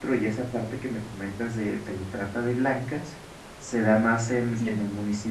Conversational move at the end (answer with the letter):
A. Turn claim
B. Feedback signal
B